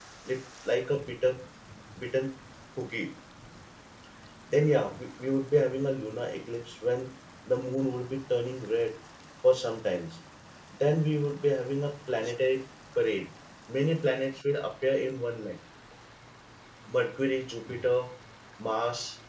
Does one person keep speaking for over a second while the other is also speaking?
No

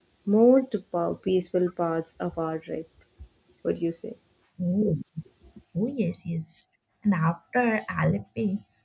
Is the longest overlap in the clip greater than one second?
No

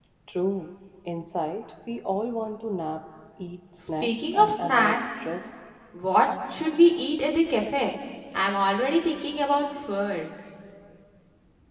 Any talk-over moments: Yes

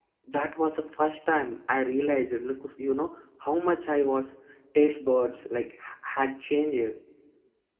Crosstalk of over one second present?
No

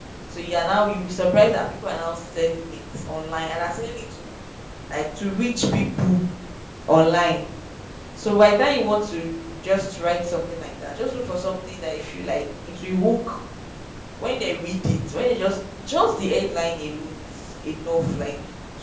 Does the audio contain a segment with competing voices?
No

